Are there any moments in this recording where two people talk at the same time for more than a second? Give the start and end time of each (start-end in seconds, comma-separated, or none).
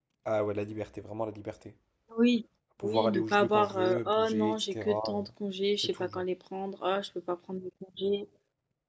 2.8-5.3